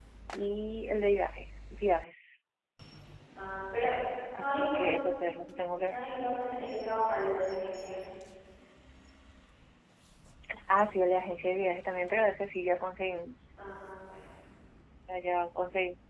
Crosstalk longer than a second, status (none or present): none